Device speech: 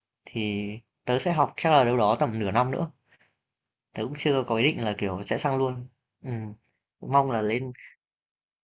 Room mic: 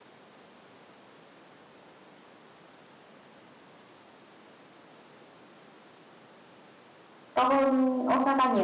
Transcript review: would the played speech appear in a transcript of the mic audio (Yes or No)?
No